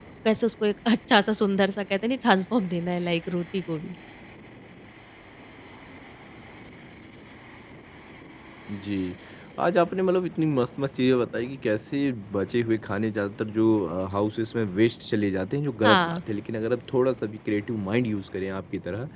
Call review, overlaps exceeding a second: none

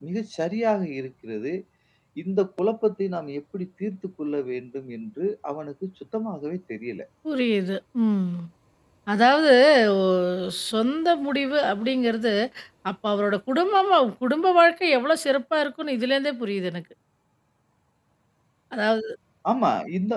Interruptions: none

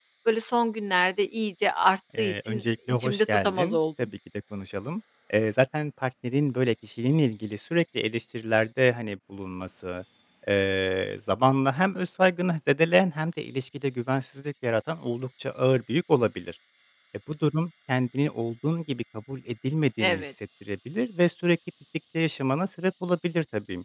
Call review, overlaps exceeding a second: present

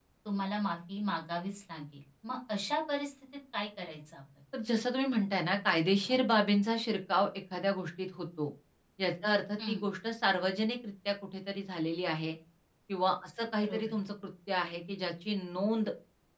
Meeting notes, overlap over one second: none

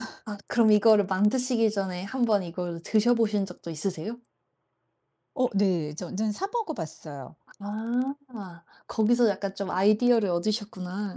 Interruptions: none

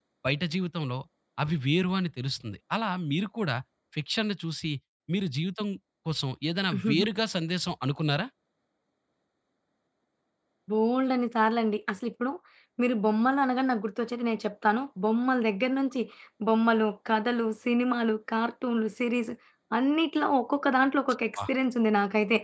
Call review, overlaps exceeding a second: none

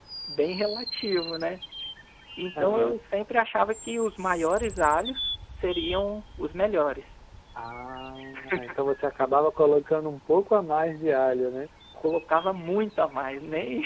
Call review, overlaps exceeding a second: none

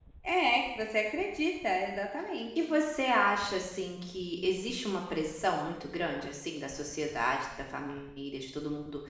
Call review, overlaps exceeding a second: none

